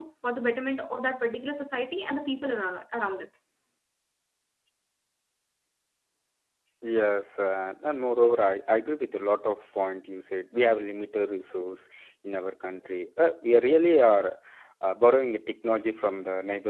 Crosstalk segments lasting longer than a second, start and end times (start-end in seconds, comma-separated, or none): none